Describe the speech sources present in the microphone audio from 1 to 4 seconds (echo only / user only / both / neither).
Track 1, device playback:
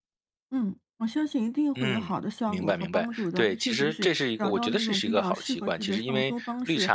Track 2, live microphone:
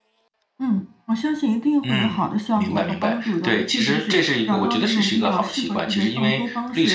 echo only